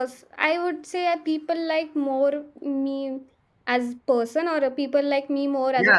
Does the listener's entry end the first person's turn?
Yes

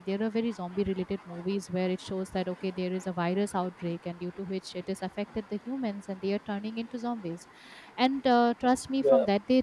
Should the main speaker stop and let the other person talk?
No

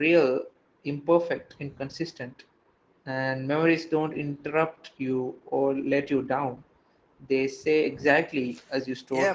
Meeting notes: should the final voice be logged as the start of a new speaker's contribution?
Yes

